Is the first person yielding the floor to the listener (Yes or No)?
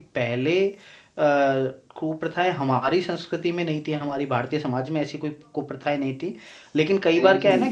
No